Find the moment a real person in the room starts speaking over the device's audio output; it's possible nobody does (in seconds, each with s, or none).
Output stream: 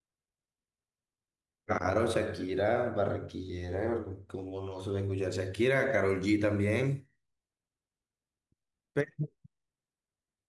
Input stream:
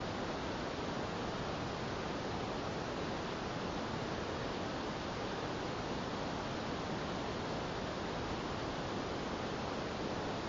none